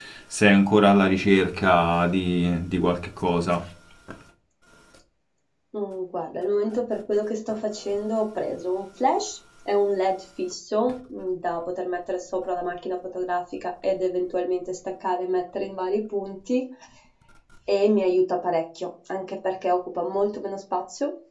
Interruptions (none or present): none